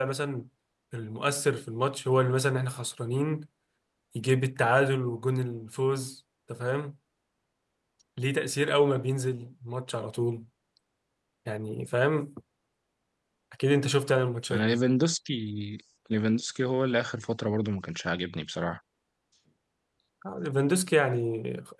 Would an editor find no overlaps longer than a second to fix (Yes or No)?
Yes